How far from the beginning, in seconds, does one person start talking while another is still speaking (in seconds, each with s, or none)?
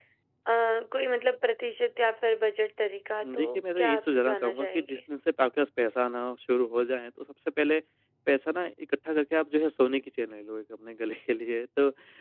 3.2 s